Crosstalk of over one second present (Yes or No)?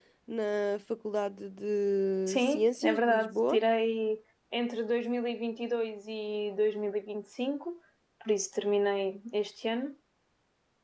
Yes